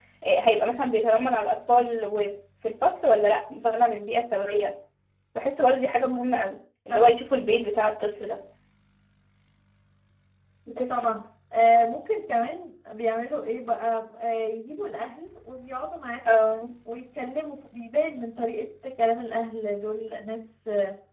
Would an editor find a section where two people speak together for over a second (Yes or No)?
No